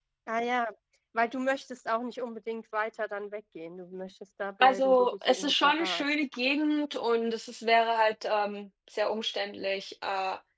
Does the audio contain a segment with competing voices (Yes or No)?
Yes